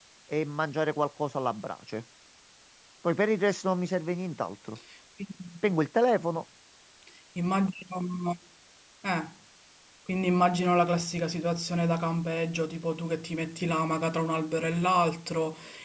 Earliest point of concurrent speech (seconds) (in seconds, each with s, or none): none